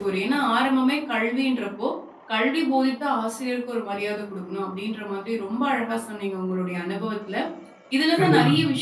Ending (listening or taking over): listening